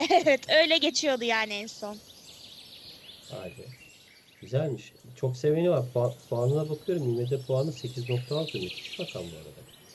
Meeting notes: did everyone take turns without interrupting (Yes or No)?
Yes